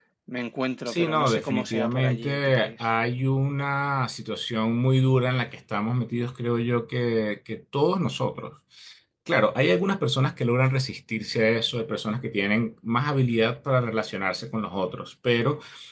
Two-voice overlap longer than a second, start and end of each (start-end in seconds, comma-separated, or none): 0.9-2.7